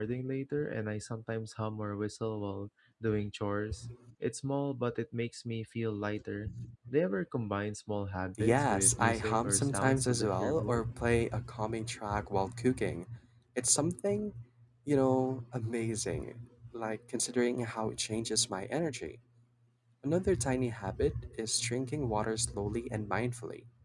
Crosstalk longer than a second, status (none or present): present